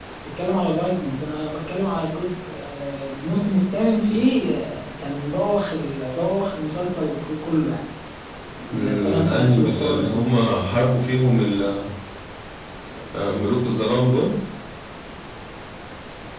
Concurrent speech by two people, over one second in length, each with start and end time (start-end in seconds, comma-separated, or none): 8.9-10.2